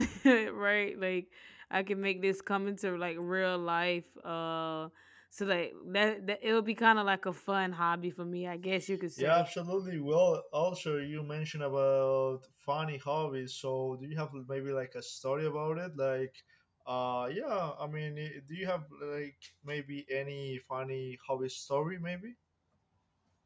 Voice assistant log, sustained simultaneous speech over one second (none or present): none